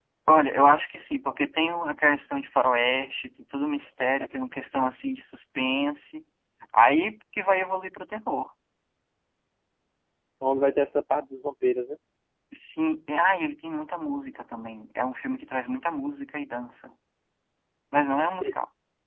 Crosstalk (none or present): none